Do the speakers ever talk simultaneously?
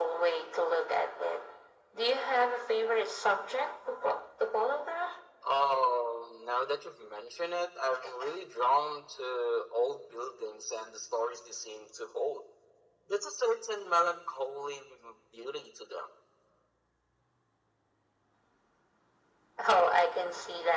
No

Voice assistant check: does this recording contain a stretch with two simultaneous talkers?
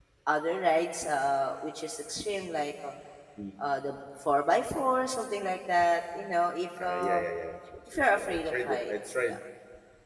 Yes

